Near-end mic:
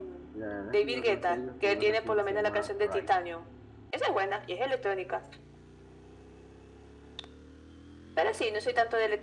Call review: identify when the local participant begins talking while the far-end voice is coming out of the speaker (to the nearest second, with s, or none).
0 s